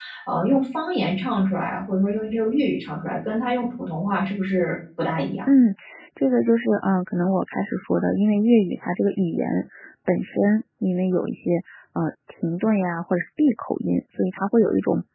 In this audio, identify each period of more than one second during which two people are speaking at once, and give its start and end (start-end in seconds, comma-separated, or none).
none